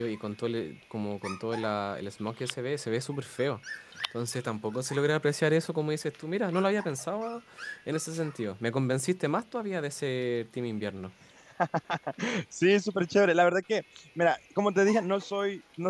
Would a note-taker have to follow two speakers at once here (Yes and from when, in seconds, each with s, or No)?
No